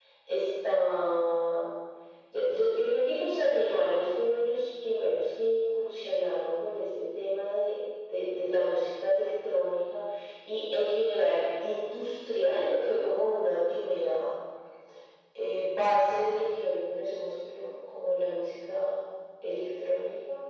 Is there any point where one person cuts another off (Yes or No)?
No